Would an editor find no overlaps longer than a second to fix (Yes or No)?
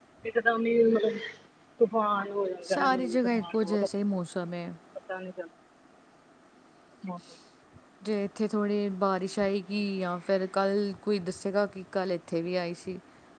No